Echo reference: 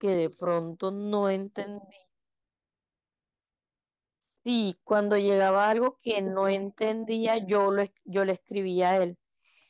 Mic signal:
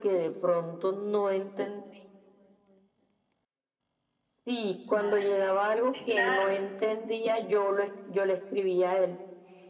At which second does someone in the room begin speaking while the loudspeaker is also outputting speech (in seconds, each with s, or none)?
4.8 s